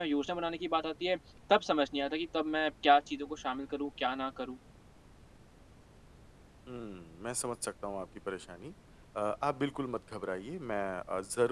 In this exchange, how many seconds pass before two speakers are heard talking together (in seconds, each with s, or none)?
none